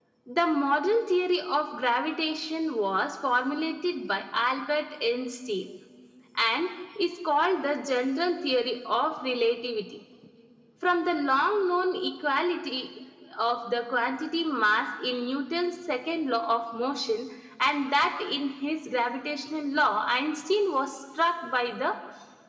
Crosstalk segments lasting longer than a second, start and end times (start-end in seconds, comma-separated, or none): none